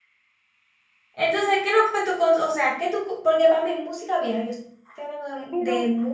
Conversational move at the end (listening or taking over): listening